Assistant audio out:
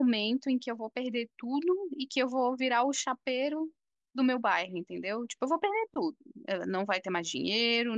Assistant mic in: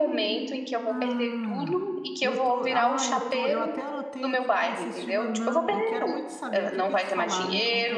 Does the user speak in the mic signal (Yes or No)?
Yes